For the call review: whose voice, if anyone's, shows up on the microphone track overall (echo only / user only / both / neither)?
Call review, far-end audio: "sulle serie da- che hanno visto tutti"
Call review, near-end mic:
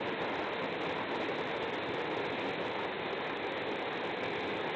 neither